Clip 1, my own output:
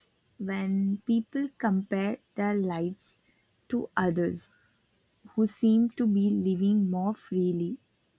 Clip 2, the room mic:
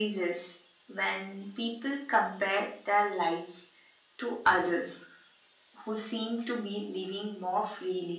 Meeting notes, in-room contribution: none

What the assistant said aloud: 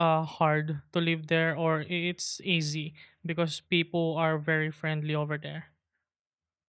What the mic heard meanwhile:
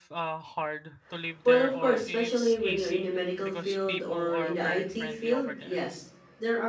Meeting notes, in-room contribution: present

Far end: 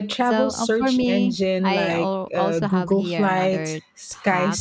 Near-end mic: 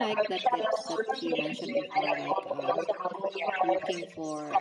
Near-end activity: present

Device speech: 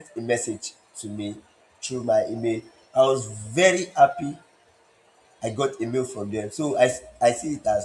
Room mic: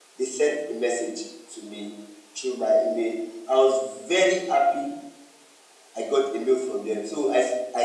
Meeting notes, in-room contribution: none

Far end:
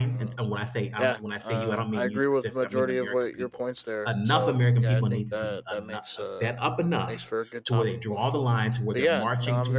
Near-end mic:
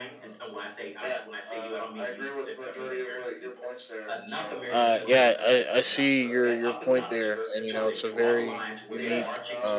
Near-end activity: present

